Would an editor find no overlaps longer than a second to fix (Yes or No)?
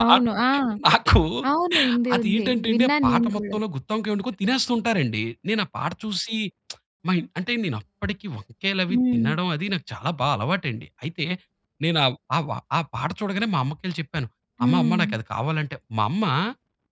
No